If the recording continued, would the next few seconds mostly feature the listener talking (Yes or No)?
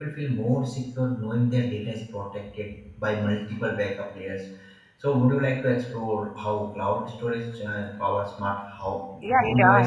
Yes